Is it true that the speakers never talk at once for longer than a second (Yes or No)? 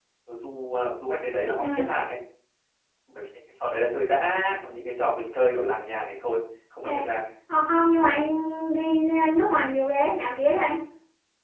Yes